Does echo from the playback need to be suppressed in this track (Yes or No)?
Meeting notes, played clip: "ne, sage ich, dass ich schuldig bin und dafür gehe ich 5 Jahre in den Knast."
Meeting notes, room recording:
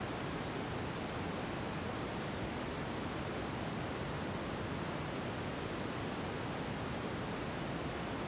No